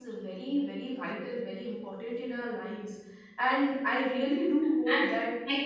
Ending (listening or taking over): taking over